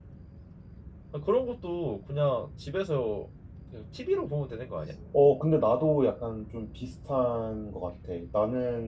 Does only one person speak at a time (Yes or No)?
Yes